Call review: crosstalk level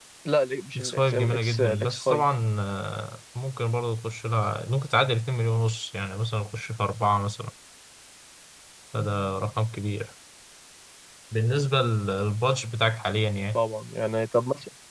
present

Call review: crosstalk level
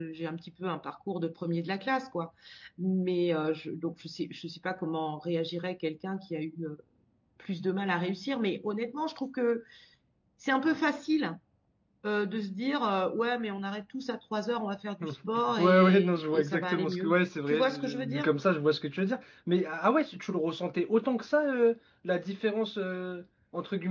present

